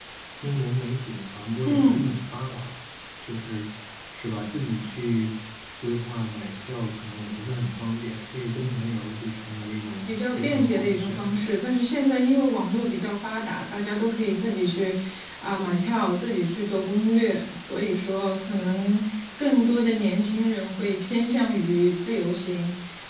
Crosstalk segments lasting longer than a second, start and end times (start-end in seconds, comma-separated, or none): 10.1-11.4